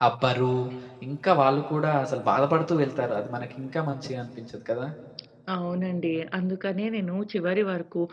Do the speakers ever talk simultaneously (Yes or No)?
No